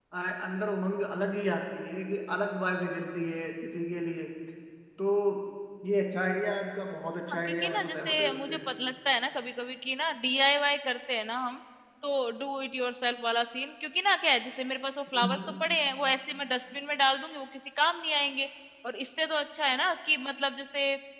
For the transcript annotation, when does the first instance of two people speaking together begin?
7.3 s

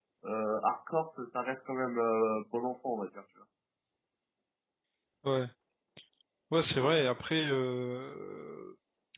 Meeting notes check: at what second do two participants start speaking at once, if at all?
none

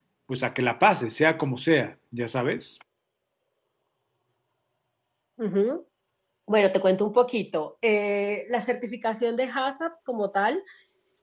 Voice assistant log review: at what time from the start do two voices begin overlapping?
none

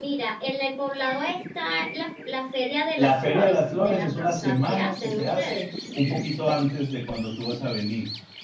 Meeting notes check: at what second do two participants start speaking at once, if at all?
3.0 s

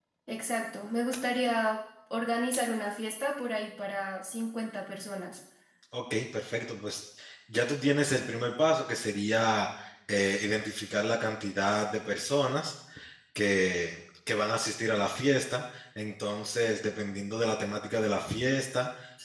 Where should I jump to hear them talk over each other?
none

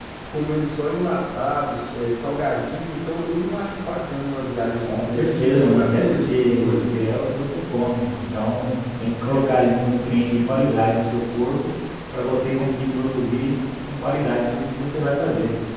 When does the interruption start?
4.8 s

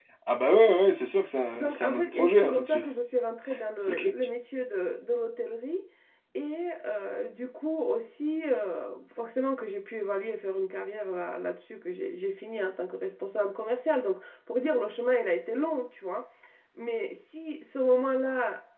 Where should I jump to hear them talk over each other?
1.6 s

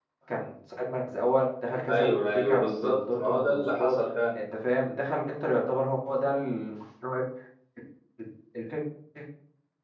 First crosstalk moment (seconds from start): 1.9 s

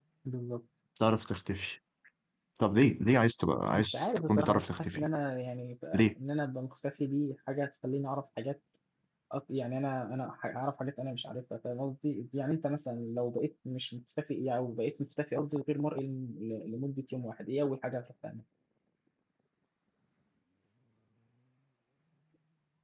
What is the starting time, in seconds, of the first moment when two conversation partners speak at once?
3.7 s

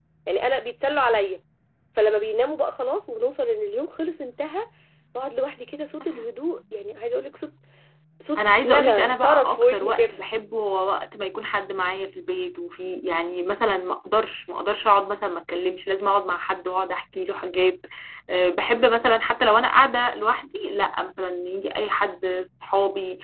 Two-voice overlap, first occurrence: 8.4 s

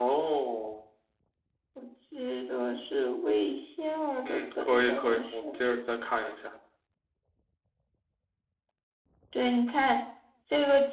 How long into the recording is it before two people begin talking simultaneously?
4.2 s

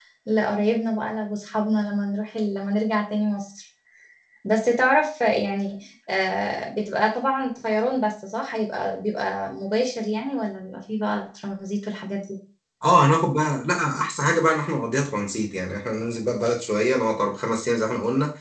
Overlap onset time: none

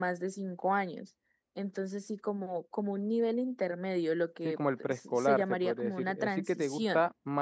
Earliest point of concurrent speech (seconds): 4.4 s

